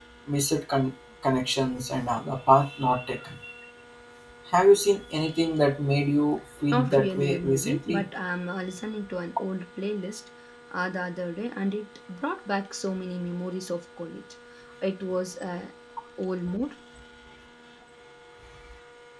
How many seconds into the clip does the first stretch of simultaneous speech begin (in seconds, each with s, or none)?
6.7 s